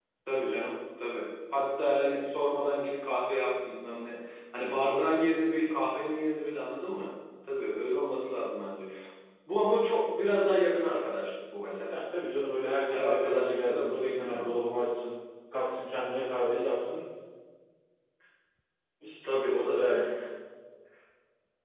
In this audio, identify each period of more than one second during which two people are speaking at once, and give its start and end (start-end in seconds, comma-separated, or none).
12.9-14.5